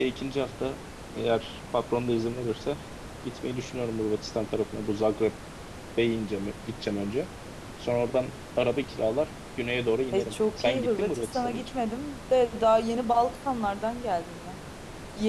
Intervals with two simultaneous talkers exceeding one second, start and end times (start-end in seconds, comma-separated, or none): 10.1-11.7